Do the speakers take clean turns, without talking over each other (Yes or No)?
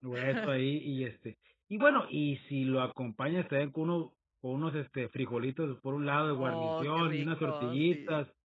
No